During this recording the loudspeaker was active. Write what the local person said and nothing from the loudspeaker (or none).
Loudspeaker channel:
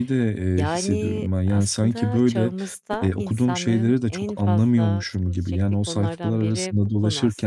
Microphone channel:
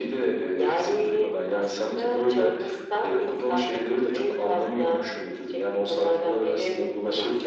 none